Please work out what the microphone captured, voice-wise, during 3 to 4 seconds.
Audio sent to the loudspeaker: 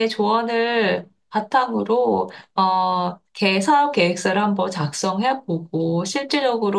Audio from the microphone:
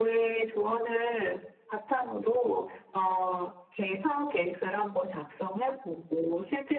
echo only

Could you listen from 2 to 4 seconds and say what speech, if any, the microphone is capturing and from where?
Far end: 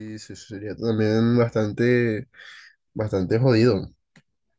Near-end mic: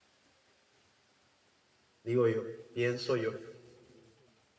user only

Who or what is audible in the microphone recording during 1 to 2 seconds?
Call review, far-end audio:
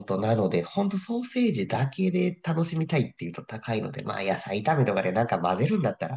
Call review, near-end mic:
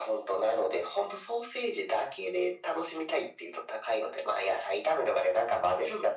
echo only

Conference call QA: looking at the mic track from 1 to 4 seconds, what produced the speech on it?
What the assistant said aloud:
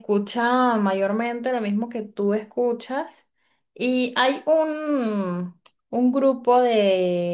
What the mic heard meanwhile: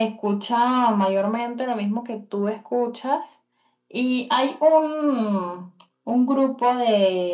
echo only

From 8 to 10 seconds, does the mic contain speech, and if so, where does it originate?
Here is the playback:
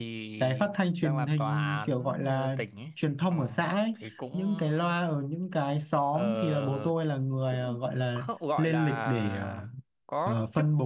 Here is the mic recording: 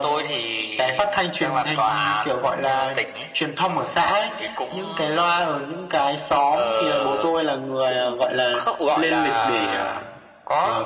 echo only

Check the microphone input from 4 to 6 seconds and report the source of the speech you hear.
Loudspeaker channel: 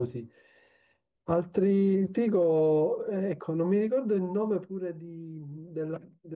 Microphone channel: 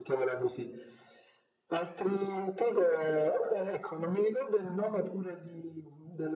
echo only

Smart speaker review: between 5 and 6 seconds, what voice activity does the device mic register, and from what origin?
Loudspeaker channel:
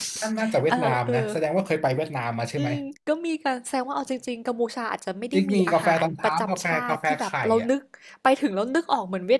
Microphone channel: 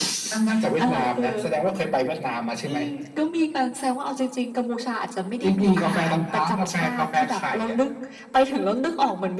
echo only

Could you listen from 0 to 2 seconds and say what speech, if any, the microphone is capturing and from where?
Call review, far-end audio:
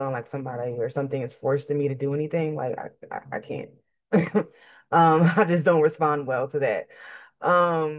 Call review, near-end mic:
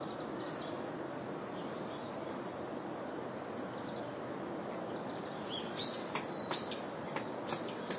neither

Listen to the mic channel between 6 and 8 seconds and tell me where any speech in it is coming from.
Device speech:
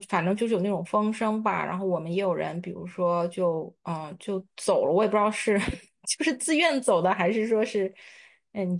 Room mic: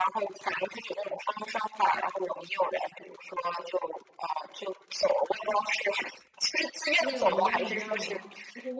both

